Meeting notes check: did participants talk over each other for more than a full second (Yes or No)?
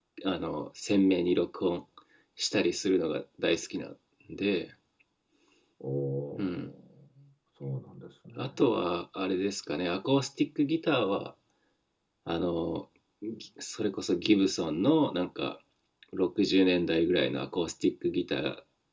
No